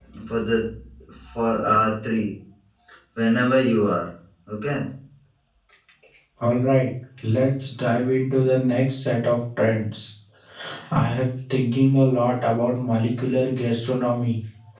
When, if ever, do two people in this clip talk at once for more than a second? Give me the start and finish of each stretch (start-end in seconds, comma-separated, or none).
none